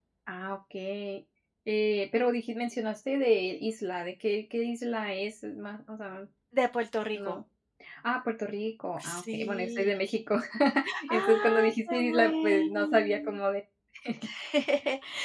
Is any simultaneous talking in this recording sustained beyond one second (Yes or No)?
Yes